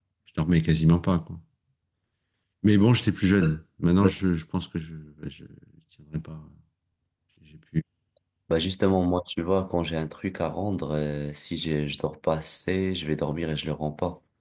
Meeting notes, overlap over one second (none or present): none